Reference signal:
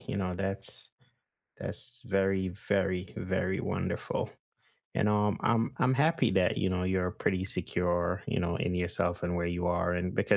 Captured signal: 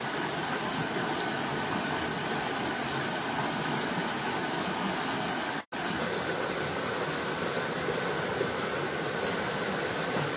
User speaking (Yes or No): No